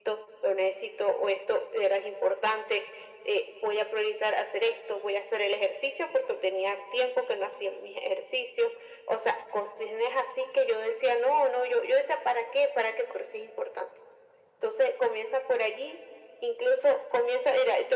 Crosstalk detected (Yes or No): No